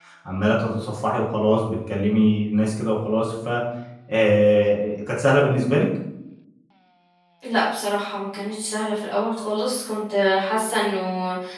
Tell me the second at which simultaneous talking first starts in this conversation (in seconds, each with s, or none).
none